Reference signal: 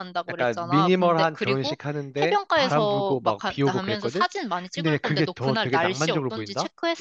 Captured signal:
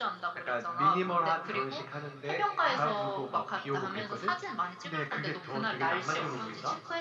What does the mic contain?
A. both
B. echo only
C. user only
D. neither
B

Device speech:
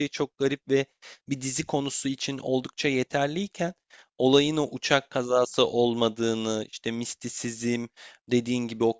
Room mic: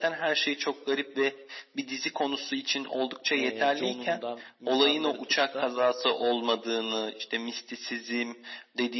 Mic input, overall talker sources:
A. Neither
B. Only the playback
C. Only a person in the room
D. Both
D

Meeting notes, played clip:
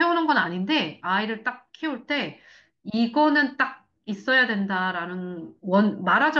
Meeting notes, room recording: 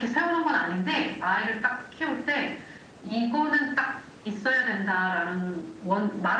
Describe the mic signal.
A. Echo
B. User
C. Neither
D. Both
A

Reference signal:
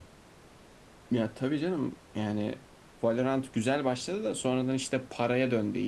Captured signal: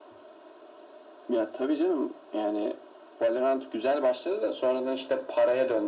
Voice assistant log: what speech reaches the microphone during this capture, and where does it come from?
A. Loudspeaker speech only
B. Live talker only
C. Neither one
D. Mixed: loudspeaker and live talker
A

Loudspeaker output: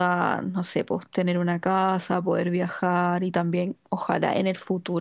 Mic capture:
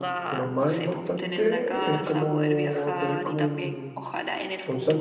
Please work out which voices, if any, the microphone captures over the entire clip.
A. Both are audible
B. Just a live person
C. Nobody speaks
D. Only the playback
A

